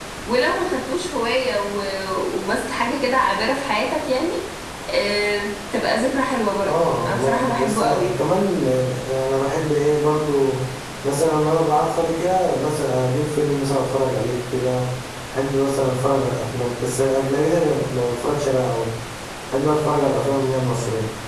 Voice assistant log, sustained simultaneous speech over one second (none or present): present